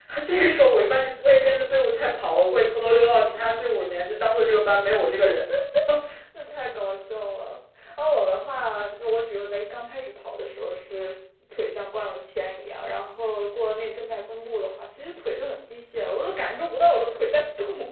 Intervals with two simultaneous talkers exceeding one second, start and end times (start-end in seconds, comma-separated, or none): none